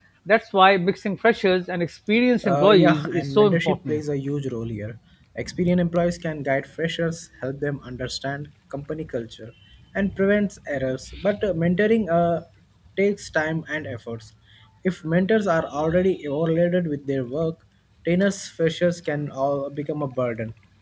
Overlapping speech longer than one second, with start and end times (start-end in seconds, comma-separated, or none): 2.4-4.0